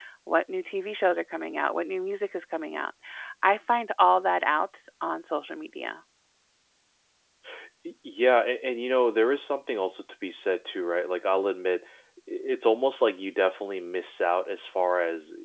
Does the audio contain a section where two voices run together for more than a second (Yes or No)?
No